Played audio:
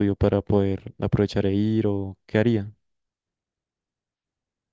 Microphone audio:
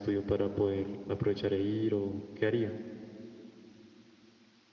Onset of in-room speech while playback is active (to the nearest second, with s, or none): none